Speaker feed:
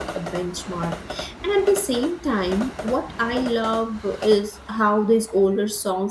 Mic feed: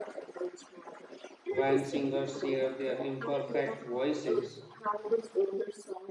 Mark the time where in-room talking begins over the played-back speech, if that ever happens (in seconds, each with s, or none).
1.4 s